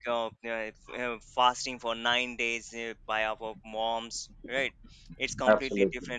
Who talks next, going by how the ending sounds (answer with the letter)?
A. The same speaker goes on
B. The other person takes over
A